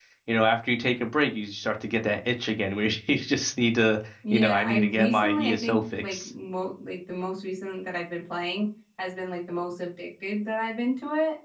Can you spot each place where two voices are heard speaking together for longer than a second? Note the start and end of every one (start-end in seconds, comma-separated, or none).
4.3-6.3